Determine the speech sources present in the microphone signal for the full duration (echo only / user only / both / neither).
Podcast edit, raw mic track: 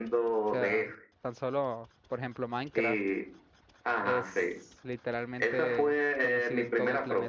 both